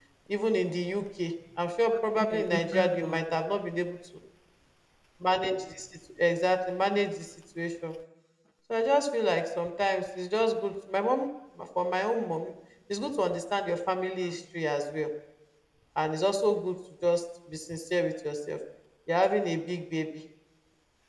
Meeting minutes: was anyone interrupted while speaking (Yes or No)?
Yes